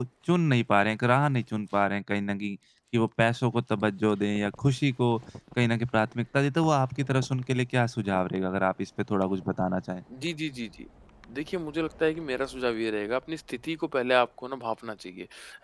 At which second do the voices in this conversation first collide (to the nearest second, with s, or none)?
none